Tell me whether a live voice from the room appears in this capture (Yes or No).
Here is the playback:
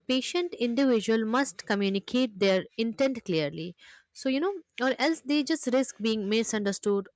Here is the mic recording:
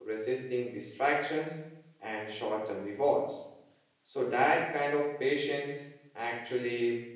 Yes